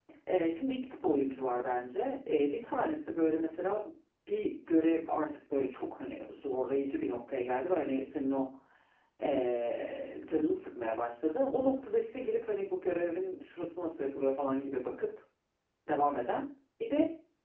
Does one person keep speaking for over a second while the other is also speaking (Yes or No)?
No